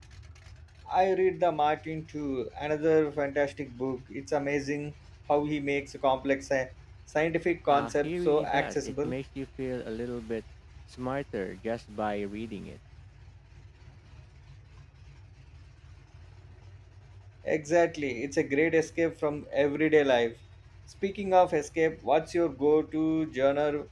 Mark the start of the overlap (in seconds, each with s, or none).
7.7 s